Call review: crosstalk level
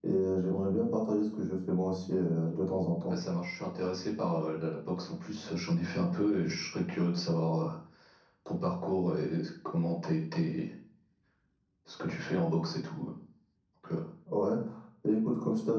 none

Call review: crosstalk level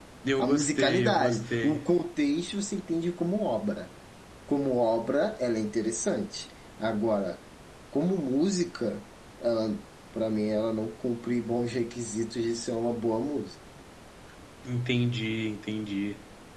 present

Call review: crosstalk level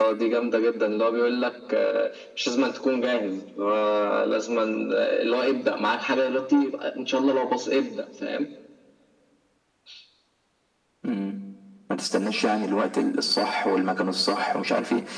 none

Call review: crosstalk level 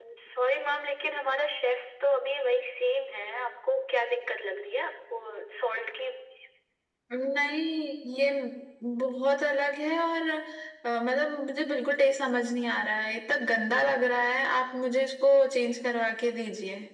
none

